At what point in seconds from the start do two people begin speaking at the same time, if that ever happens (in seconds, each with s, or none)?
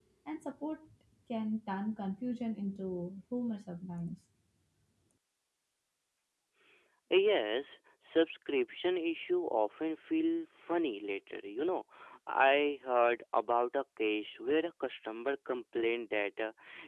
none